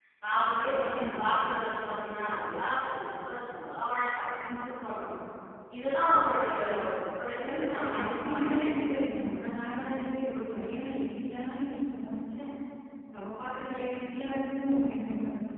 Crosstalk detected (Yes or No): Yes